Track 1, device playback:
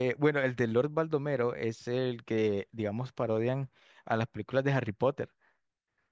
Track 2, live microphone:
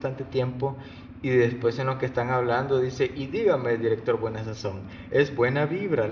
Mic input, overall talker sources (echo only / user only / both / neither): user only